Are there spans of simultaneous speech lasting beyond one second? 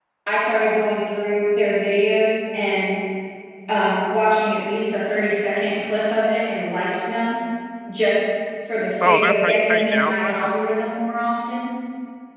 Yes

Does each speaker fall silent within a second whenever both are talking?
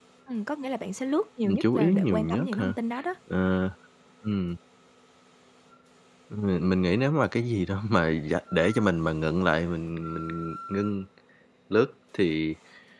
No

